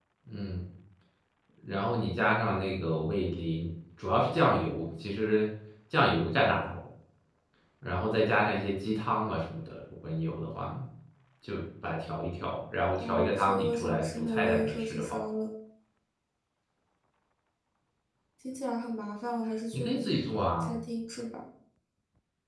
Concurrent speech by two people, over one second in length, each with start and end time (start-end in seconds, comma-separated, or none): 13.0-15.2